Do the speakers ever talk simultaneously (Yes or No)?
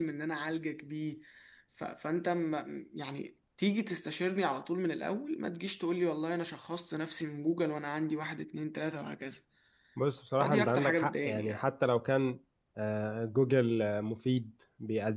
Yes